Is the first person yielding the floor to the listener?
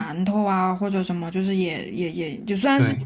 No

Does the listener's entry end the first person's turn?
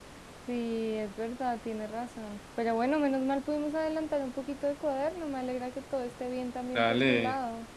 Yes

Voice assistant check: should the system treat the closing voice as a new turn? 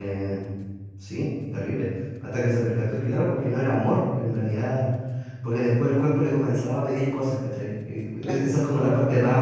No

